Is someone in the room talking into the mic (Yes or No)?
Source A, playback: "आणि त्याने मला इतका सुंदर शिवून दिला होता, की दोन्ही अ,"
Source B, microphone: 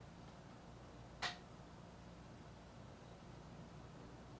No